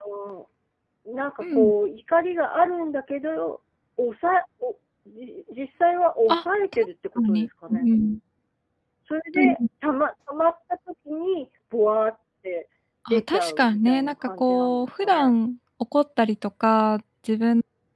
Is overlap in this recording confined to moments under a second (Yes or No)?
No